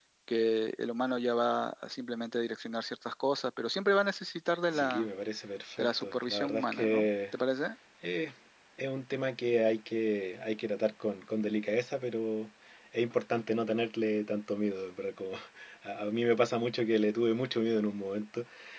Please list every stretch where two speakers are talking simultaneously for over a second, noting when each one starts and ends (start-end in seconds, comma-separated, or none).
5.8-7.1